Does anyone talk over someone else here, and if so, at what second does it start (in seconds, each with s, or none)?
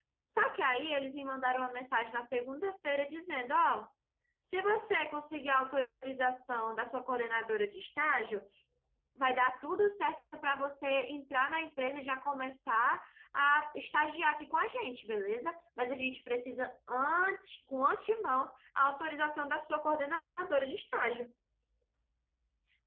none